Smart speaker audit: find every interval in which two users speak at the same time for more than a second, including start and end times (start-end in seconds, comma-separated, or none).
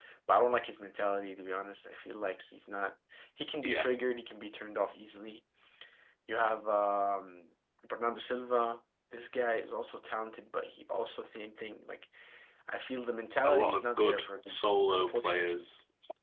13.4-15.7